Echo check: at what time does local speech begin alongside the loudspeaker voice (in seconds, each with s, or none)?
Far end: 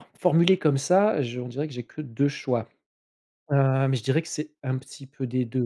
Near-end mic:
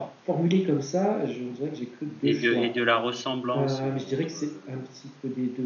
2.2 s